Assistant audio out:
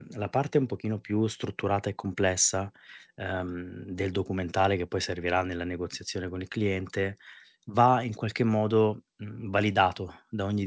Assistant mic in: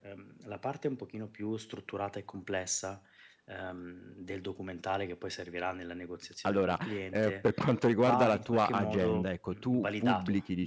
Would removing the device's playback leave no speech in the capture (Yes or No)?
No